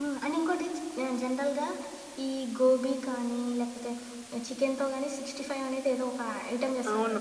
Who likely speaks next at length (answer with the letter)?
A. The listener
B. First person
B